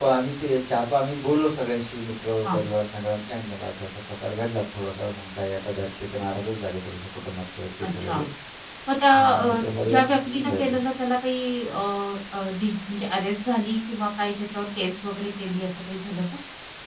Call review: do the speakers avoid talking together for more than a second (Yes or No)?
No